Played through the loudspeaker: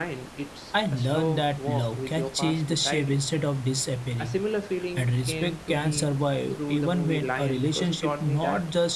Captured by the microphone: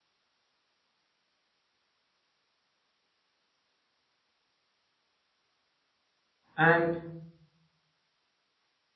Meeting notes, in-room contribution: present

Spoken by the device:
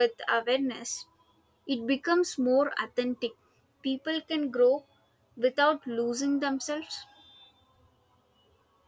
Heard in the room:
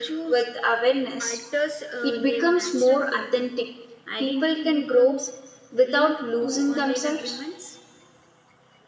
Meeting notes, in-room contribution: present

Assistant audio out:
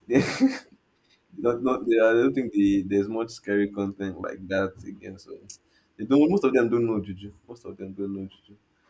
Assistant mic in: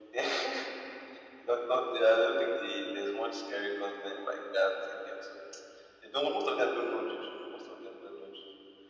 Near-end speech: none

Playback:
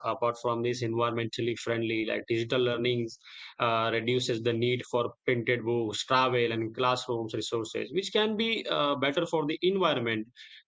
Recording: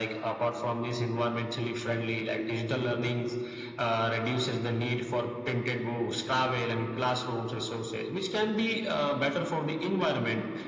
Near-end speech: none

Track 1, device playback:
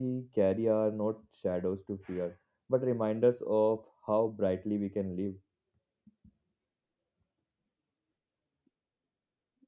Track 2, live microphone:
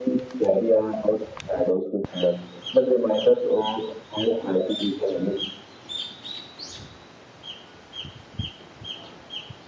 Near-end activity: none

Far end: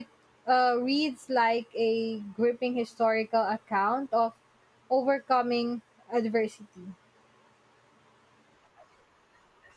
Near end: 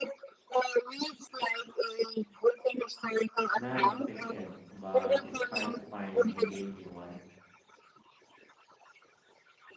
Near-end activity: present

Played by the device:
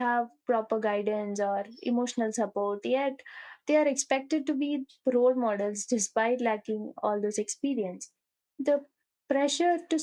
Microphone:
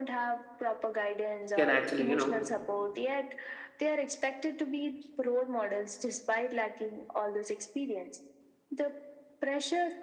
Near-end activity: present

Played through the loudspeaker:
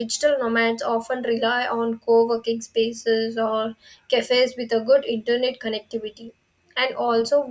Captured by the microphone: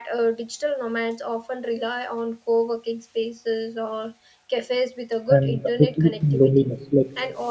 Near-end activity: present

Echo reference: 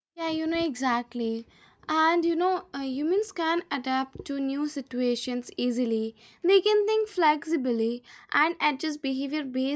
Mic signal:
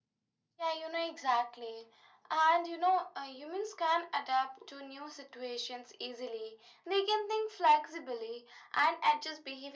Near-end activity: none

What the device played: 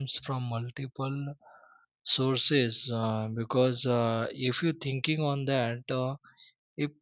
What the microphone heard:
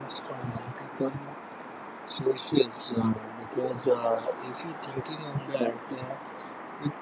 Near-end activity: none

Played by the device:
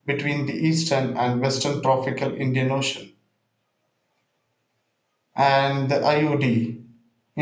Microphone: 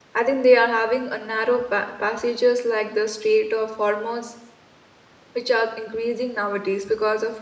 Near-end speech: present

